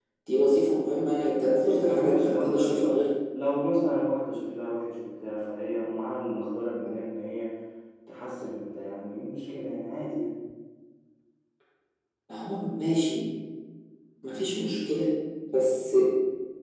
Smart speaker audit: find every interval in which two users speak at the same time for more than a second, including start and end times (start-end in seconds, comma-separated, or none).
1.6-3.0